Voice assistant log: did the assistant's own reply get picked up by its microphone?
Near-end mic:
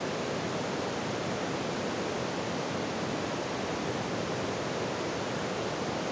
No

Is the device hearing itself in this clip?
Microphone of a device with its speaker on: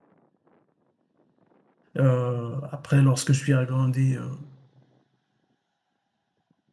No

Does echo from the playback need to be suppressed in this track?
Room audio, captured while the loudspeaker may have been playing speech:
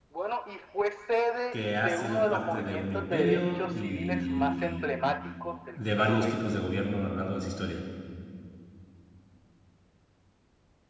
Yes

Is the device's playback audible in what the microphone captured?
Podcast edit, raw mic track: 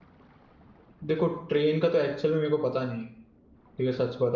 No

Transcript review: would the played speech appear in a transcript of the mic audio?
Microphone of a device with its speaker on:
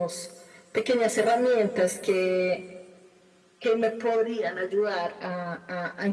Yes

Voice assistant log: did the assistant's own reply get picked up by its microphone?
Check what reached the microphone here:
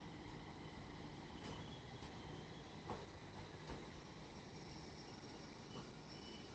No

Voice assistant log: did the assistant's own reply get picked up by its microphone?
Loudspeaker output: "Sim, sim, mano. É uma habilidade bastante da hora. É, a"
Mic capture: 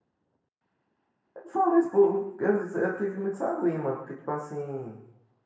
No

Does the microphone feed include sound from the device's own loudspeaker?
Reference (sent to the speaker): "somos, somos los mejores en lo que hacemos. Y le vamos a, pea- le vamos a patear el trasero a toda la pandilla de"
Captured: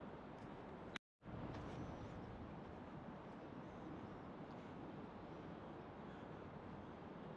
No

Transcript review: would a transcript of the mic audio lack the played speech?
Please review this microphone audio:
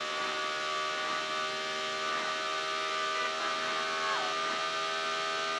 Yes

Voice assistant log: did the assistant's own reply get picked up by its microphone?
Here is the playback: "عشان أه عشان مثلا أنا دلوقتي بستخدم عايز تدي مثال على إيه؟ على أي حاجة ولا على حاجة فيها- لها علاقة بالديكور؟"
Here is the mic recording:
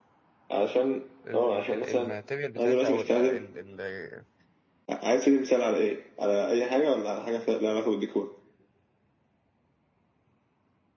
Yes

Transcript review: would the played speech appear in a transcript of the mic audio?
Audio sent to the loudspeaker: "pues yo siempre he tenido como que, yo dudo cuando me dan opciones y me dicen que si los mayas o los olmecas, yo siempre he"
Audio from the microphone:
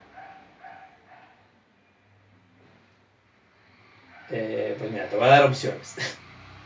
No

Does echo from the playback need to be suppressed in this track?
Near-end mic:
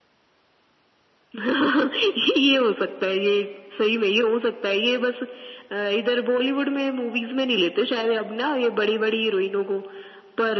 Yes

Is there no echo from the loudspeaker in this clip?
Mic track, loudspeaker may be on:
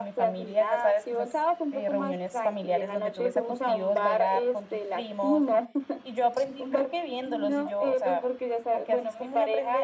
No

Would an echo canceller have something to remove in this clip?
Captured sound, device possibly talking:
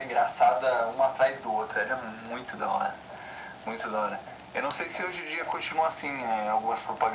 Yes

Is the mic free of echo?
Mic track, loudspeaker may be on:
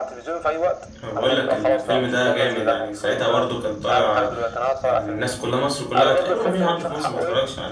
No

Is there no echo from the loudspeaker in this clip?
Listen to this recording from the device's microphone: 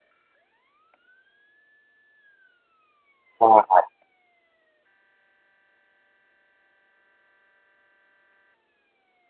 Yes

